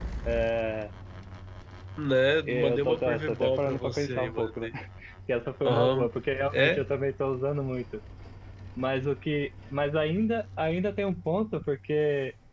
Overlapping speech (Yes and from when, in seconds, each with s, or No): Yes, from 2.5 s